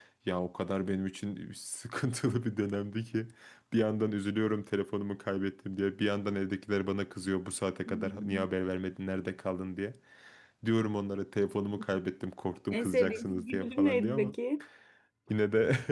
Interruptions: present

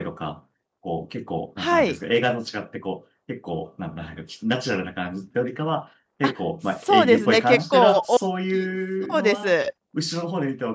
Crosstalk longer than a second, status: present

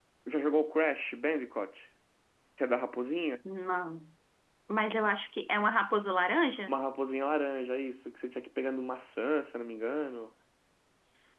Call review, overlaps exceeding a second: none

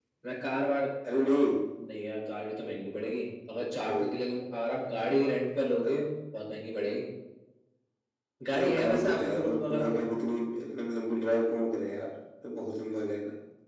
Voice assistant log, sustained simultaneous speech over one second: present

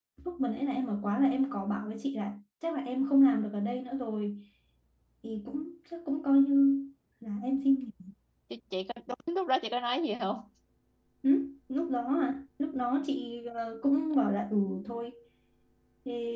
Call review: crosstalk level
none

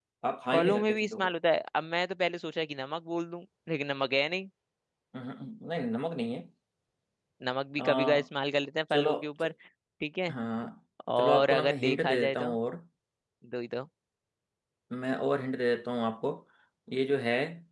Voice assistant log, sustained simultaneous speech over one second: present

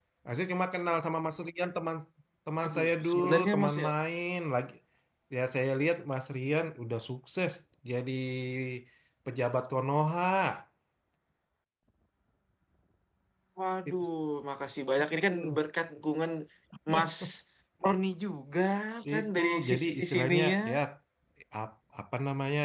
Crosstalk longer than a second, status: present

